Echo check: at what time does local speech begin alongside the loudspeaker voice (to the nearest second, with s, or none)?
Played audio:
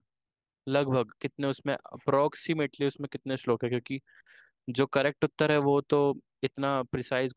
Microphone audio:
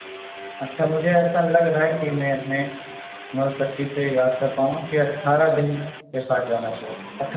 1 s